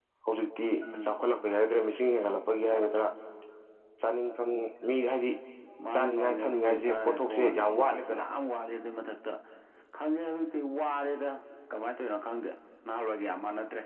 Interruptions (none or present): present